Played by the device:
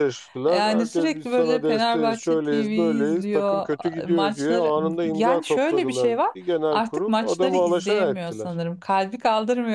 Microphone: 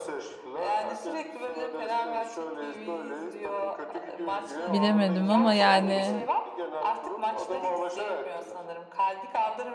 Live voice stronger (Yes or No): Yes